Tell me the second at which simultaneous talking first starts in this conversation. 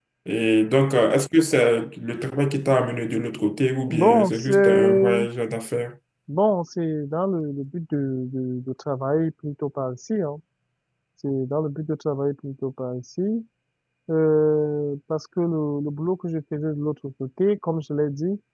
3.9 s

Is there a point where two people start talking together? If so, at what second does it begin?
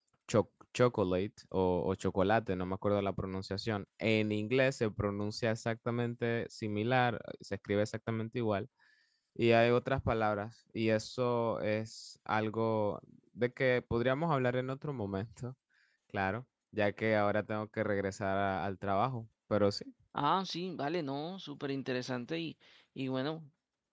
none

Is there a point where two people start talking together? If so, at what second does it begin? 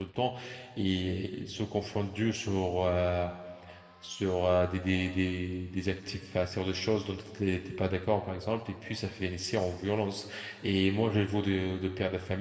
none

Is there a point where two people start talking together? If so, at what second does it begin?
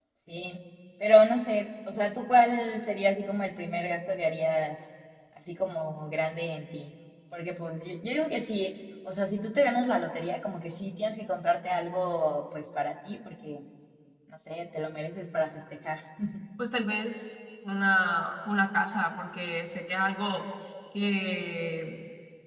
none

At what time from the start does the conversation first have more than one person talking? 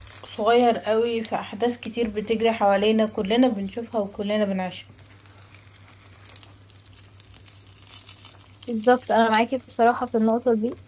none

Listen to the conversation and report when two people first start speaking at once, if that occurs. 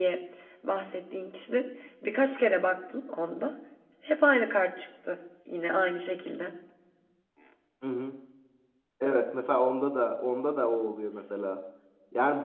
none

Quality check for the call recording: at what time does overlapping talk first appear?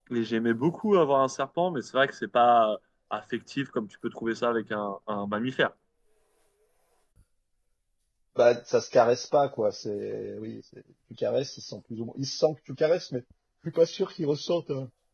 none

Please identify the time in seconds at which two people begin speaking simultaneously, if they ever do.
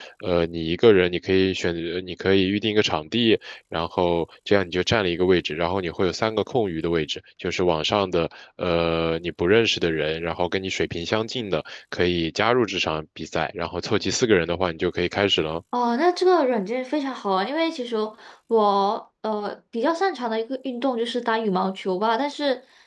none

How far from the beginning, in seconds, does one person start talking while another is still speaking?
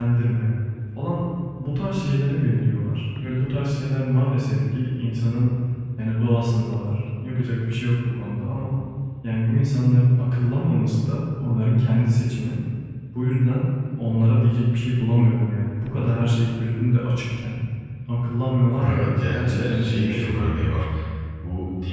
18.8 s

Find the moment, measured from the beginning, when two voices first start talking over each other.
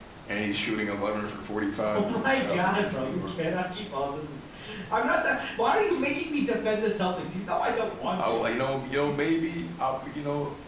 1.9 s

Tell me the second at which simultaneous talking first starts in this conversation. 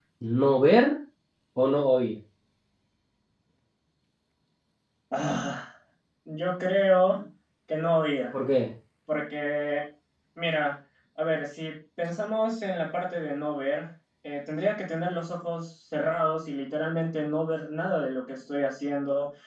none

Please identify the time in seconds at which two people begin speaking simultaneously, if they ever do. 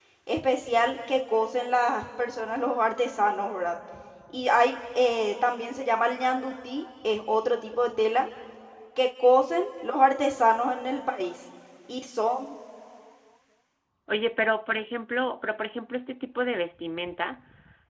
none

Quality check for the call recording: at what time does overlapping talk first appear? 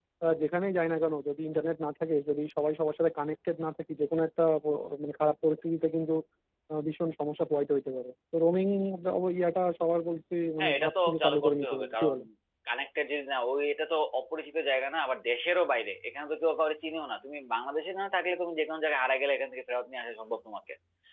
10.6 s

